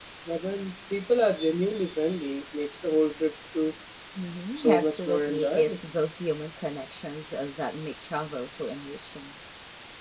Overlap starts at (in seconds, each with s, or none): 4.6 s